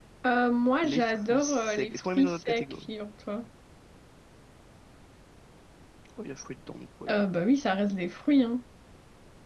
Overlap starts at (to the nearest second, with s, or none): 1 s